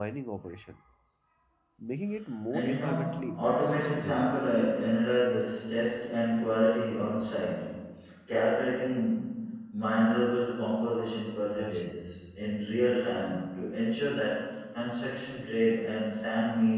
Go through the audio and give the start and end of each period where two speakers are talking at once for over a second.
2.5-4.3

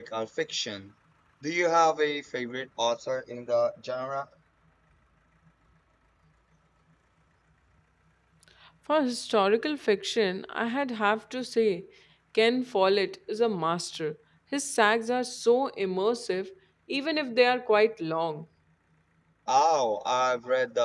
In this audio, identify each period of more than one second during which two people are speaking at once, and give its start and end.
none

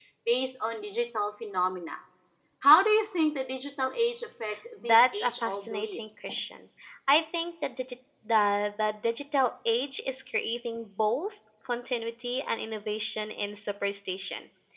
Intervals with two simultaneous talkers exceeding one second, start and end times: 4.8-6.0

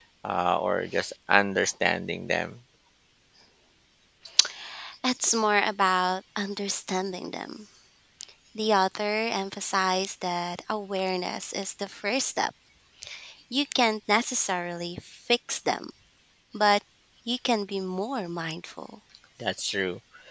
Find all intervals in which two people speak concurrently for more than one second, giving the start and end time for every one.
none

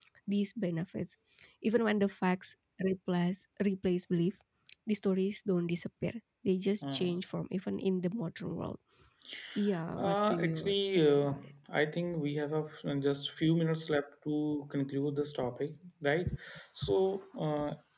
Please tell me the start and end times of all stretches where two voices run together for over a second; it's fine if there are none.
10.0-11.3

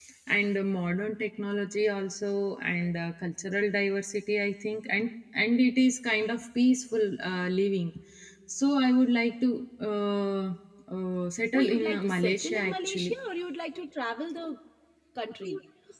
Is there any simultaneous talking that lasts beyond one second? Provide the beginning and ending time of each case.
11.5-13.1

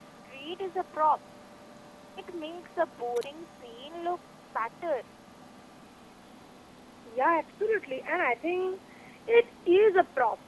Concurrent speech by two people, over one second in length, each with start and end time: none

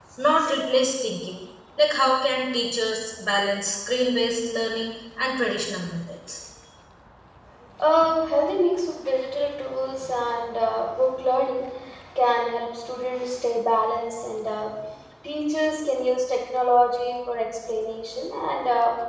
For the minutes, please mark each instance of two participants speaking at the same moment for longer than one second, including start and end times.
none

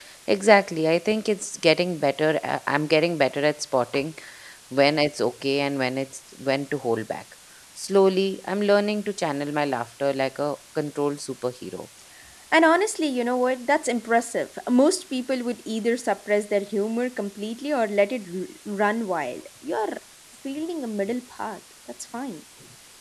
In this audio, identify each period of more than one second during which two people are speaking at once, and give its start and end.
none

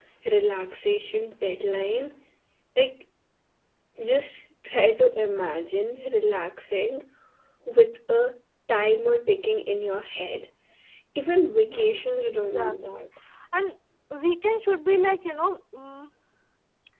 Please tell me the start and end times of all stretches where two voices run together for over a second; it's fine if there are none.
11.6-13.1

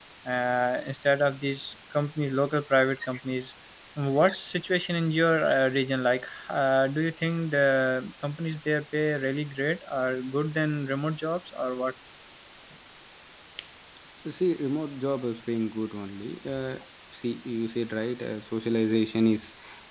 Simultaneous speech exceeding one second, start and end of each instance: none

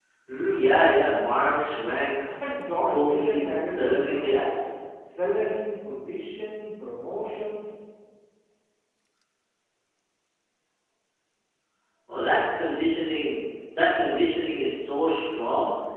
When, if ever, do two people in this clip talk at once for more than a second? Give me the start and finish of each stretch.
2.9-4.5

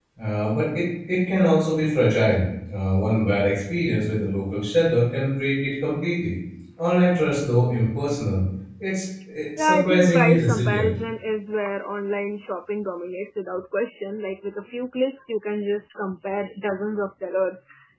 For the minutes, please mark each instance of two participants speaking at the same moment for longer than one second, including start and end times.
9.6-10.9

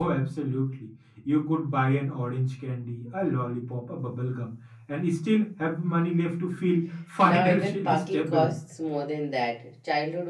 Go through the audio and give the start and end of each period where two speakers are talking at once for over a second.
7.2-8.5

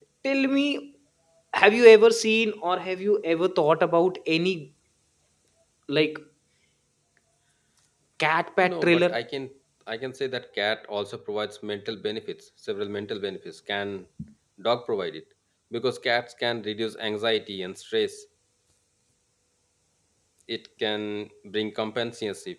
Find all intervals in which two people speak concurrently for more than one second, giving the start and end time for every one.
none

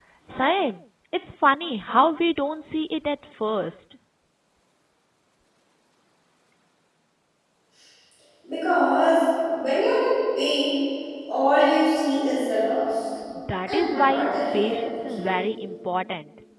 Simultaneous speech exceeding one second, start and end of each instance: 13.7-15.5

